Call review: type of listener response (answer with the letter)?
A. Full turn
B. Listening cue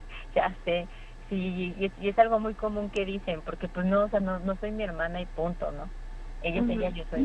A